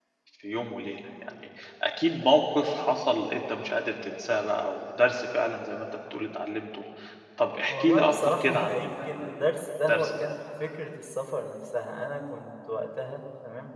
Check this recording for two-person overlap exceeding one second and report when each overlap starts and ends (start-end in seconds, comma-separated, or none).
7.7-10.3